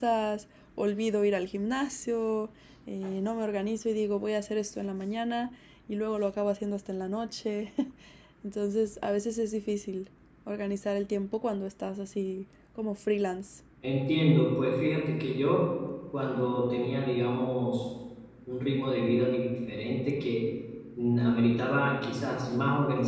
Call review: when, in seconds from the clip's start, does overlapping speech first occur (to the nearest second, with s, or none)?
none